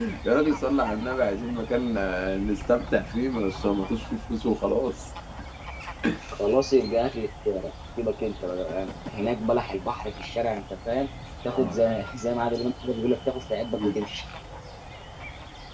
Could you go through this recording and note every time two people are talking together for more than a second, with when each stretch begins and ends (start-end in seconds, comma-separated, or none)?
none